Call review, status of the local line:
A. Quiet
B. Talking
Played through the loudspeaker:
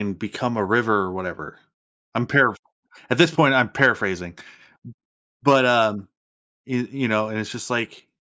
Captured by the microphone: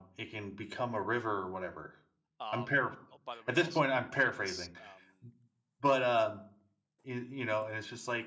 B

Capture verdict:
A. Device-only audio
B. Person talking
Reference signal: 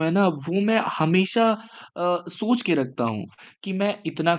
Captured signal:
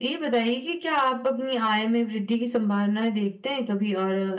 B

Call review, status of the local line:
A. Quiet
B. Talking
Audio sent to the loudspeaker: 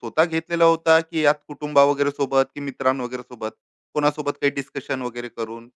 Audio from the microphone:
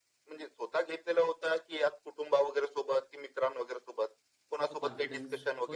B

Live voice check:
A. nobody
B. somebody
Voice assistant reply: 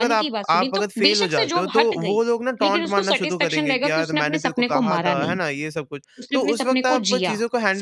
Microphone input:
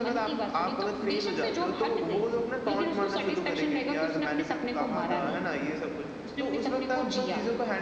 A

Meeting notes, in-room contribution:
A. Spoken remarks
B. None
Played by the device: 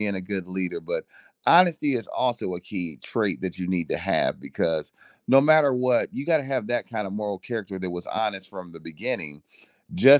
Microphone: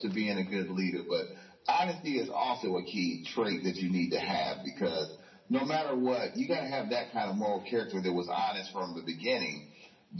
B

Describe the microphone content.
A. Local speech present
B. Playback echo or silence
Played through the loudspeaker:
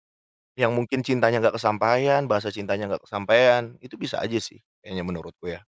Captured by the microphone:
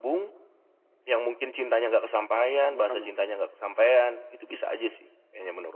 A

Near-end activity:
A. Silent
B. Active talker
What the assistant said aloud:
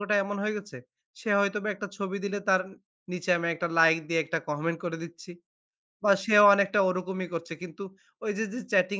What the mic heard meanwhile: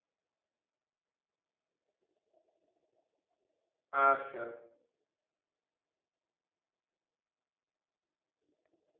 B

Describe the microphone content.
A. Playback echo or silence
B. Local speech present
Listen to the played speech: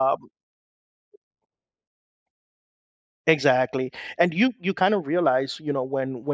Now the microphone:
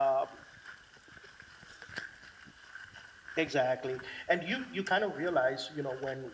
A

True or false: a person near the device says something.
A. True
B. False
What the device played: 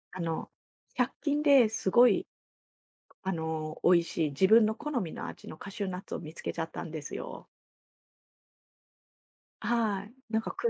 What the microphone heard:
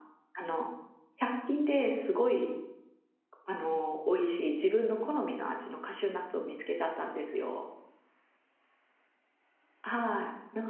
B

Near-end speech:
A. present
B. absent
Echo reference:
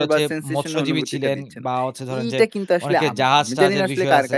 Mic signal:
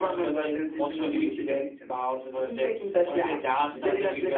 B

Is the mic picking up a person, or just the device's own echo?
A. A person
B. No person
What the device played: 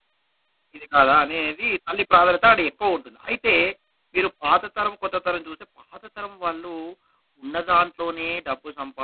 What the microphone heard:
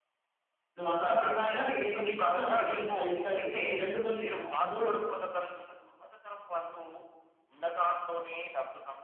A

